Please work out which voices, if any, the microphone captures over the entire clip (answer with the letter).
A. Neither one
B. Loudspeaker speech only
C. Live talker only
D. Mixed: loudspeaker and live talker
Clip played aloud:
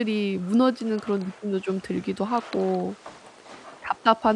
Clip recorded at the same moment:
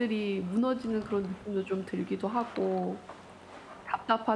B